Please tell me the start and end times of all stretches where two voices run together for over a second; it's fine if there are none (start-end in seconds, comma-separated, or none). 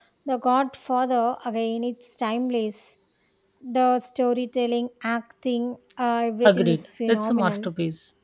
6.4-7.7